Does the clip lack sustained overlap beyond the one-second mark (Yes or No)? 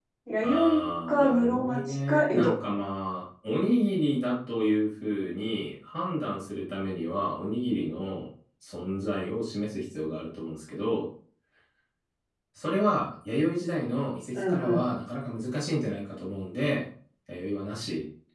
No